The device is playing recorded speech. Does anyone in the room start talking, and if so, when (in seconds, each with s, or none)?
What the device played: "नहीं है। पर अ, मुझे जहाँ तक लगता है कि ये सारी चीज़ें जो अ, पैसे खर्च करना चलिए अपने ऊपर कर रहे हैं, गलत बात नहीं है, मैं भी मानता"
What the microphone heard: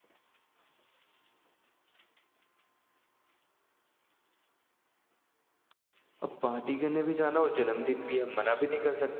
6.2 s